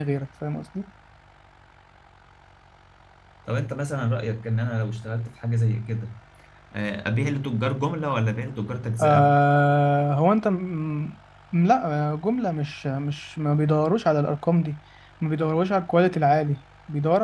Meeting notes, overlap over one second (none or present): none